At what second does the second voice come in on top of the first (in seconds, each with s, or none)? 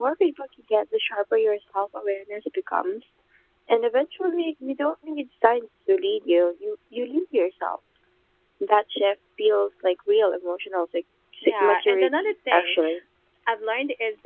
11.4 s